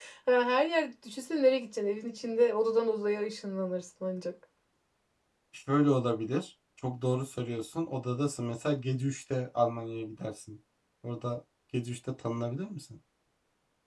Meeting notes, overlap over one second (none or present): none